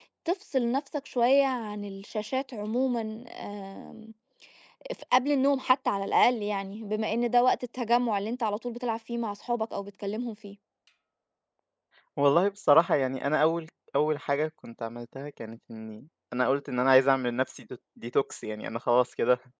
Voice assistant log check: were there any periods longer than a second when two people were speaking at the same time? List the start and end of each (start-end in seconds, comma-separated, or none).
none